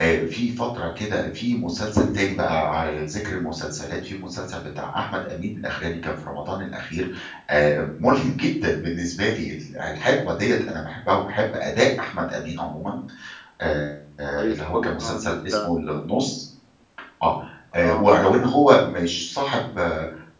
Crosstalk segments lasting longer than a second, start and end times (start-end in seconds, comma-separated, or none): 14.3-15.7